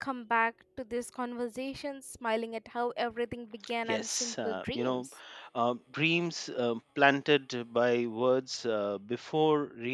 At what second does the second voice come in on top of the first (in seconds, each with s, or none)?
3.9 s